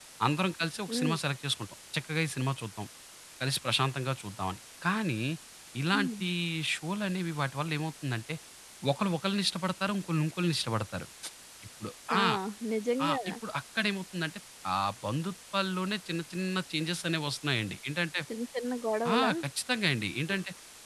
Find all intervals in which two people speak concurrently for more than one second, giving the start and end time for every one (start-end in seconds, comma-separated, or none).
none